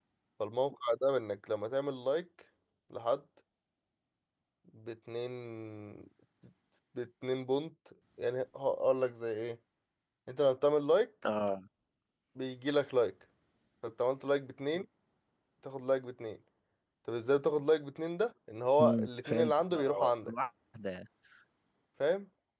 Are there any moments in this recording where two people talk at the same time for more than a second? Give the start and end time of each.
18.8-20.3

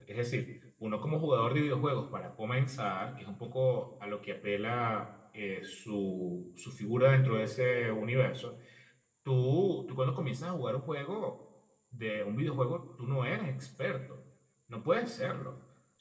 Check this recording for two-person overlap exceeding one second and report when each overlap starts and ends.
none

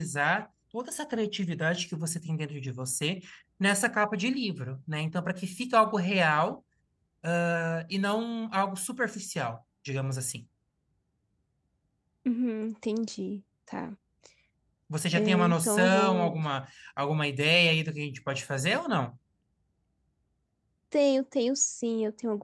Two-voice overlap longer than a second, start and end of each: 15.1-16.4

